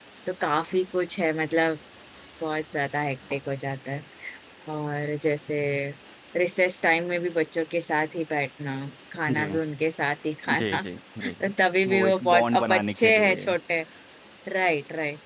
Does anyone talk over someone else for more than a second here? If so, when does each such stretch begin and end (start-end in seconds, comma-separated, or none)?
11.9-13.5